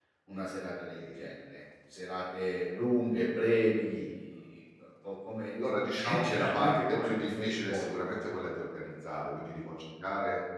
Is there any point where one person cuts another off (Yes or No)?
Yes